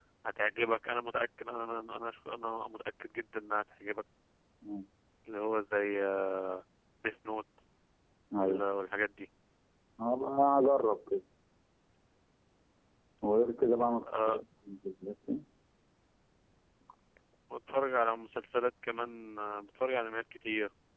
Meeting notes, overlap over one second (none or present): none